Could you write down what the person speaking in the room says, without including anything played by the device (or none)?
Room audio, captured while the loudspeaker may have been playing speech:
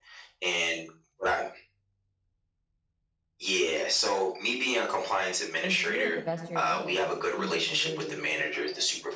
and do it the best of your ability, because it seems like you really do care about it.